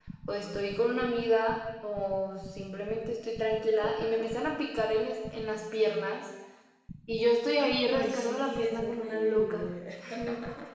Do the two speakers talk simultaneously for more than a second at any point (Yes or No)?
Yes